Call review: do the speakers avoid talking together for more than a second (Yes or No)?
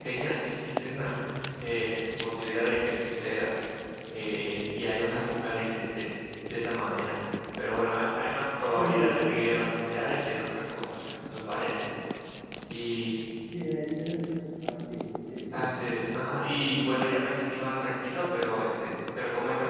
Yes